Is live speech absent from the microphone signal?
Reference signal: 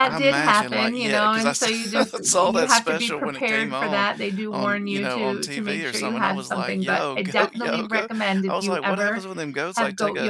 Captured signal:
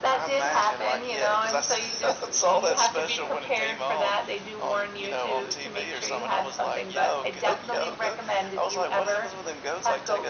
Yes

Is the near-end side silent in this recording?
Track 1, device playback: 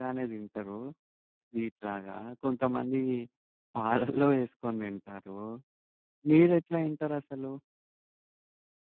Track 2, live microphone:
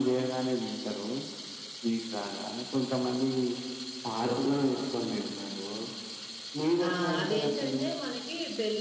No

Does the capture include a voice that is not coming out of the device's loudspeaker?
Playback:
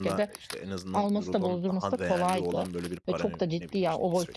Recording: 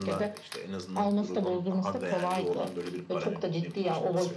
No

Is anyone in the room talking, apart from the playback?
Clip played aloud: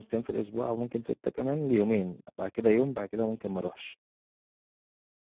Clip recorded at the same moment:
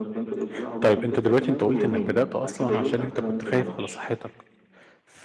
Yes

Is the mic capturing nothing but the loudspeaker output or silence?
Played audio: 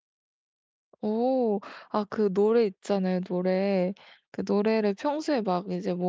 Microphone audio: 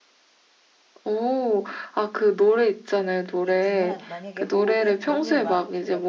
No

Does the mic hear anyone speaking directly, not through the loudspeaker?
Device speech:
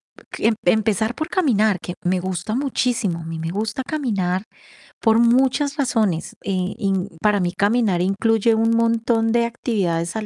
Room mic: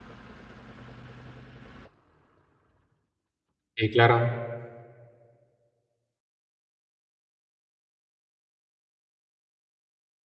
Yes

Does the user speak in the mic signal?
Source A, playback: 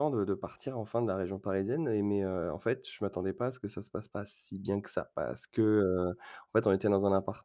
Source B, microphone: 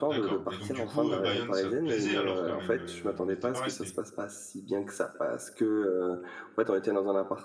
Yes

